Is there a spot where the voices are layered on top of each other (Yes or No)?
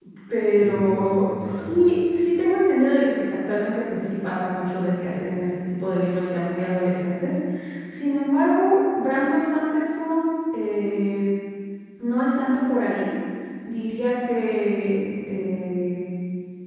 Yes